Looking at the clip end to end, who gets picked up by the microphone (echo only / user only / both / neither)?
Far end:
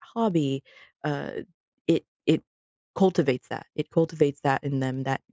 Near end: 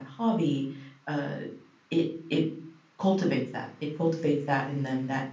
echo only